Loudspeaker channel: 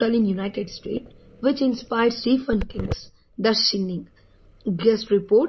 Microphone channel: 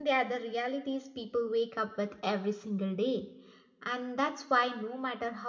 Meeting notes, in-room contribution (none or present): present